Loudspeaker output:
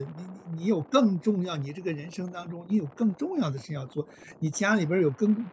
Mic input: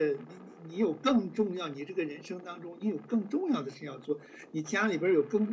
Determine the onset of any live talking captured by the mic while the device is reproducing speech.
none

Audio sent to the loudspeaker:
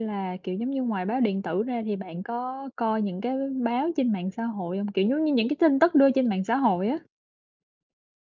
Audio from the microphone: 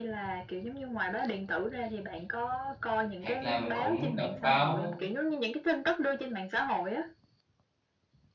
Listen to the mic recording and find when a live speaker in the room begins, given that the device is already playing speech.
3.2 s

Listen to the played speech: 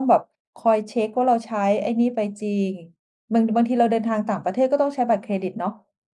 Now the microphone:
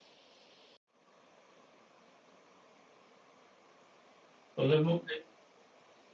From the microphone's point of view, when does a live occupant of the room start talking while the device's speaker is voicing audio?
4.5 s

